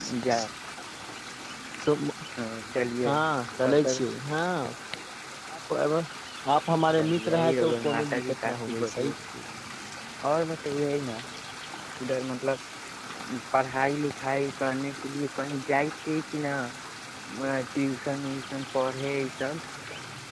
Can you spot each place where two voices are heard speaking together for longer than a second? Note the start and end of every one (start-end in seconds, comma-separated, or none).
7.0-9.1